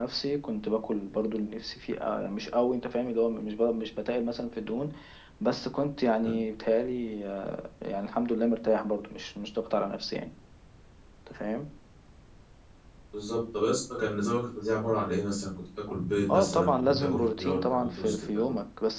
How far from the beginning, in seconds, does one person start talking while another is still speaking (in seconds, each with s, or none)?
16.3 s